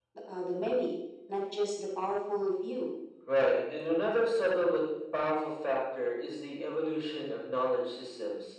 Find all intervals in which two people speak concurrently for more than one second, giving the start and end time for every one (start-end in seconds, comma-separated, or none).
none